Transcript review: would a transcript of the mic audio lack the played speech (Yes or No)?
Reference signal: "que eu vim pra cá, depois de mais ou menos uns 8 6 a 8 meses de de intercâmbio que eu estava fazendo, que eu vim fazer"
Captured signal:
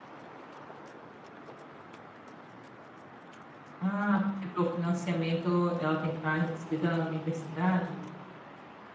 Yes